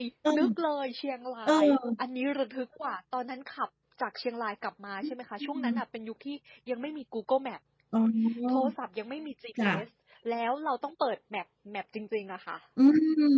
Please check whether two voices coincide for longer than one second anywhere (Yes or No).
No